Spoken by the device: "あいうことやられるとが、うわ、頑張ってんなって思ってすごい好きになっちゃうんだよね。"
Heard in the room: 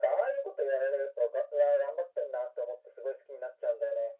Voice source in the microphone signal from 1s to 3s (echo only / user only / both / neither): echo only